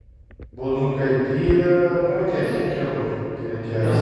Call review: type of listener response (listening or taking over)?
taking over